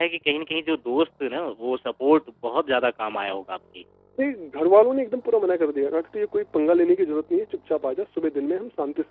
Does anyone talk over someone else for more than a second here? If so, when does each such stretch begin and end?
none

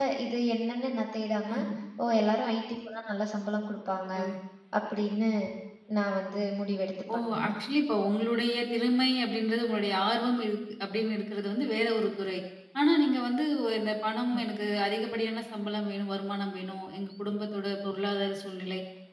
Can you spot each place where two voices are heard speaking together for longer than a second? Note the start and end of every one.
none

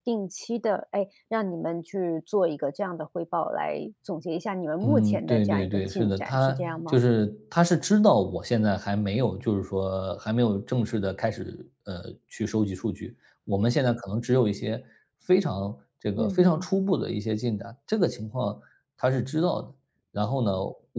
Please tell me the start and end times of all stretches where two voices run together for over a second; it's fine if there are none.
4.8-7.0

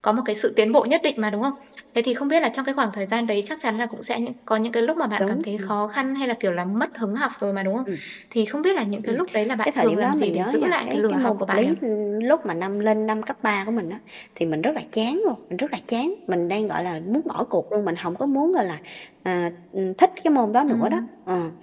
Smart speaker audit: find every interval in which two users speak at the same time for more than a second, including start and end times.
9.7-11.7

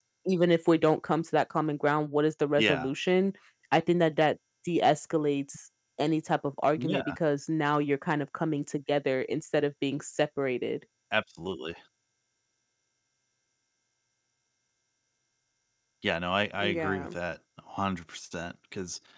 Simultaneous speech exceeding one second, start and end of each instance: none

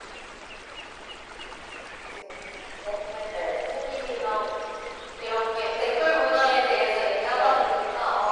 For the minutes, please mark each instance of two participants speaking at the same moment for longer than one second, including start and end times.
none

